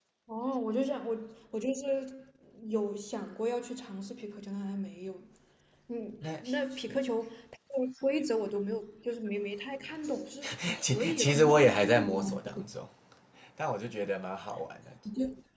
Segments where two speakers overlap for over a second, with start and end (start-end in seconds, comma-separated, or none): 10.9-12.6